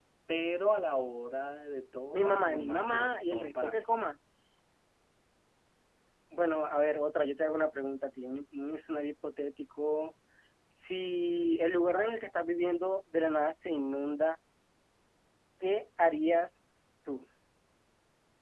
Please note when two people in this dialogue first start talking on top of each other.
2.1 s

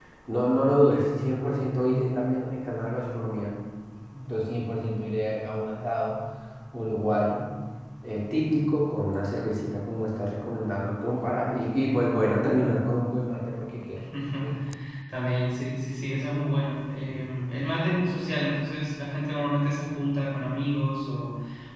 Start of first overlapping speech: none

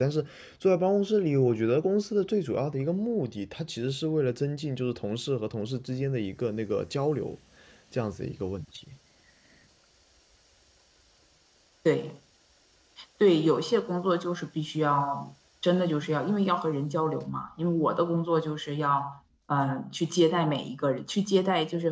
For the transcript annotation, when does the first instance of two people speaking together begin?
none

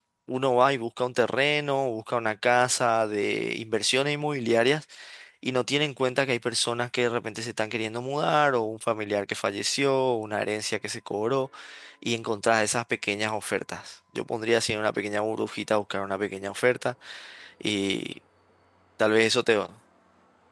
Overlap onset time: none

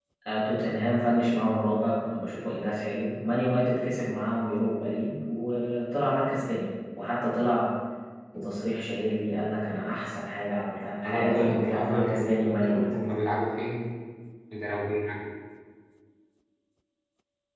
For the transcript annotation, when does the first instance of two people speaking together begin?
11.0 s

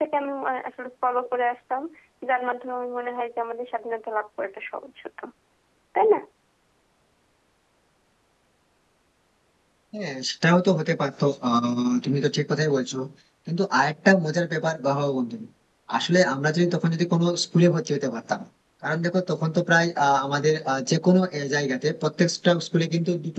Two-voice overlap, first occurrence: none

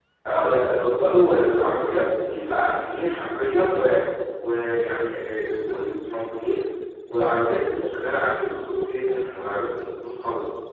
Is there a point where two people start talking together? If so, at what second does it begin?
none

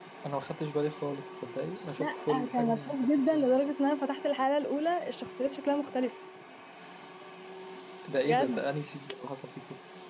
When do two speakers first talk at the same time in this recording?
2.0 s

